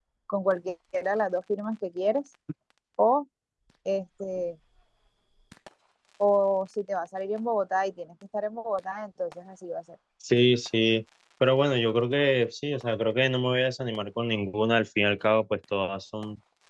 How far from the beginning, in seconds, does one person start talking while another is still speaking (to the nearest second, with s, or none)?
none